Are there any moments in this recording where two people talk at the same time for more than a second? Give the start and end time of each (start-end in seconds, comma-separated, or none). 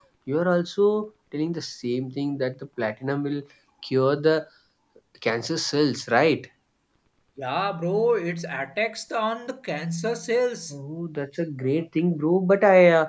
none